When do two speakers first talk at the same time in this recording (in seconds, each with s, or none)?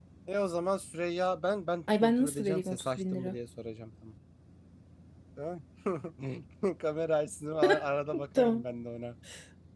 2.0 s